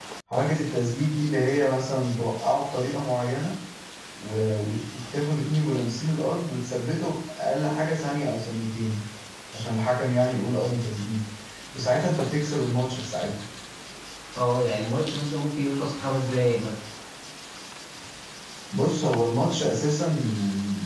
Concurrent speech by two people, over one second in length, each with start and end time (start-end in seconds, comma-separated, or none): none